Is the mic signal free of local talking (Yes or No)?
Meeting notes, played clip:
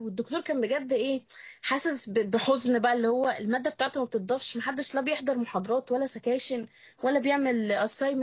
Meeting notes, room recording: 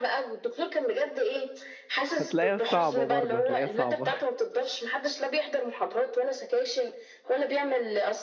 No